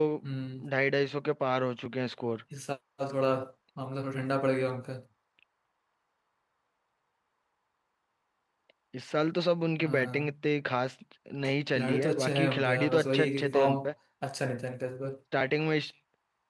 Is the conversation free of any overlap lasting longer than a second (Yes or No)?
No